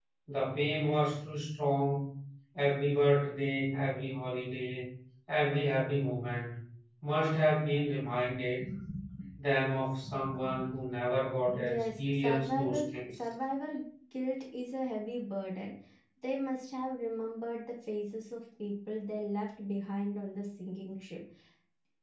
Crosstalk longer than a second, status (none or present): present